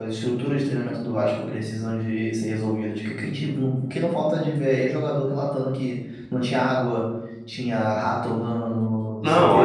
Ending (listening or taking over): taking over